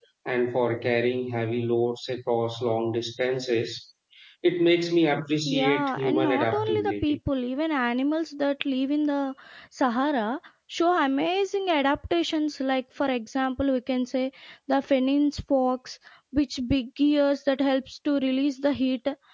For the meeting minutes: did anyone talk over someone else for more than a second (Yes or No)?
Yes